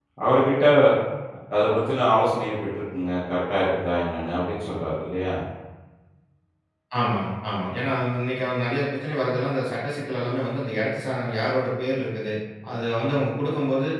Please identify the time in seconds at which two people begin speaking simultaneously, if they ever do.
none

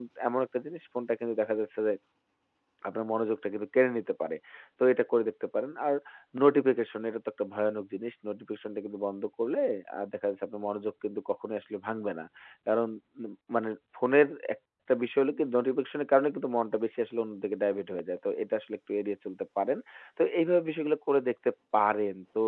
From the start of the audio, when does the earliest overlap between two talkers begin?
none

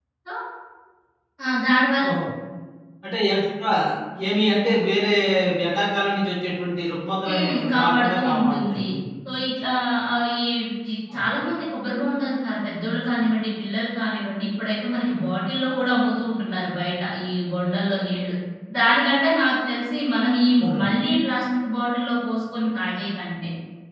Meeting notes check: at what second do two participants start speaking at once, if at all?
7 s

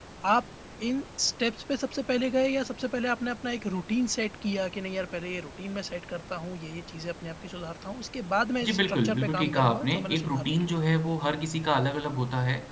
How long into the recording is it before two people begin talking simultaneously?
9 s

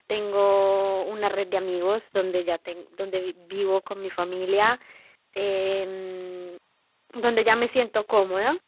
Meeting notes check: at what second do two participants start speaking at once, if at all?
none

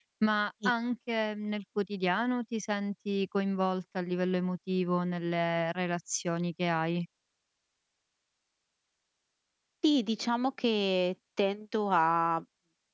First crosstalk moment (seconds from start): none

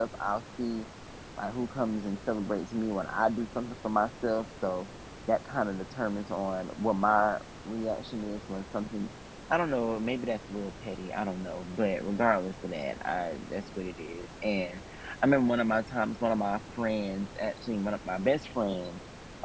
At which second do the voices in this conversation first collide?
none

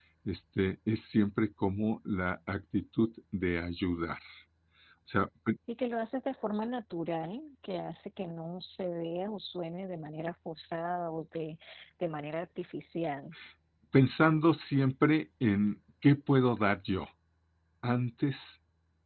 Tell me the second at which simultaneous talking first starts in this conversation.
none

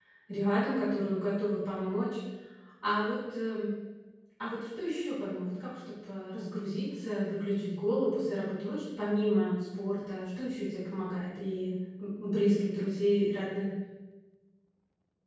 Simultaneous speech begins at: none

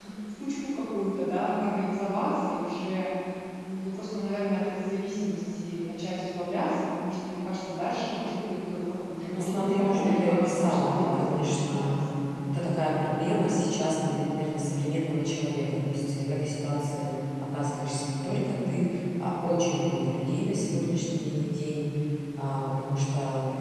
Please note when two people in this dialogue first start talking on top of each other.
9 s

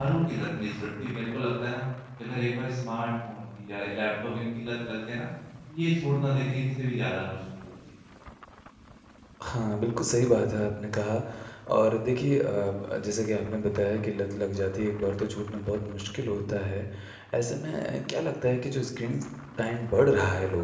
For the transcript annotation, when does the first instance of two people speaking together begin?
none

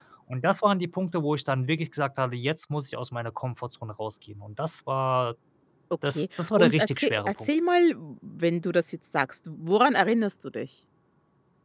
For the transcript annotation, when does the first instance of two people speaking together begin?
6 s

